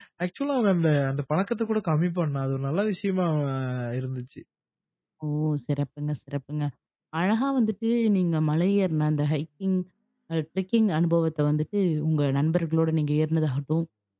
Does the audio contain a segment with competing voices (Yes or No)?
No